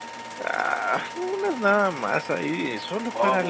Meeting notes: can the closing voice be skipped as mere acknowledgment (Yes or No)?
No